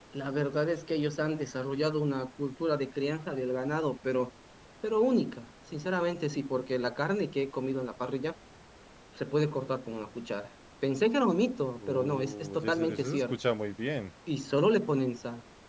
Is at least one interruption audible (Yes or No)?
Yes